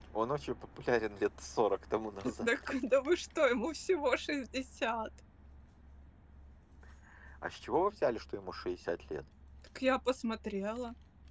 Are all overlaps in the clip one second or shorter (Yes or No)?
Yes